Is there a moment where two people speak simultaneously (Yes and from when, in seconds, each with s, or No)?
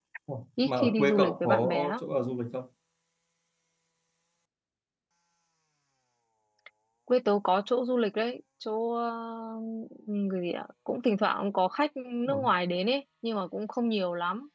Yes, from 0.6 s